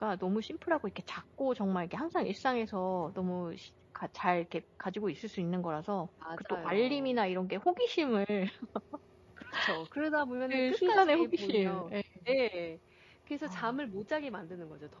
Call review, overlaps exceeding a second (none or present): present